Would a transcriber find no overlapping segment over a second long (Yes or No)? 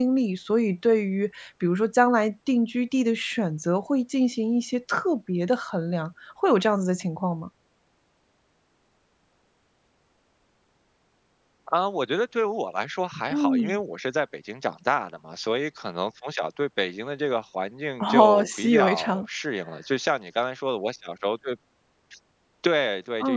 No